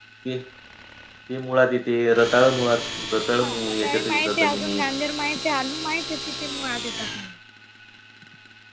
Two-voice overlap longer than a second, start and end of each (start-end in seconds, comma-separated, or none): 3.4-4.8